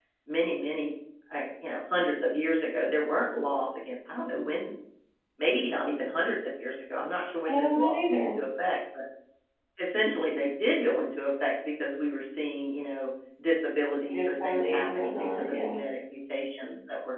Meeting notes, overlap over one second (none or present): present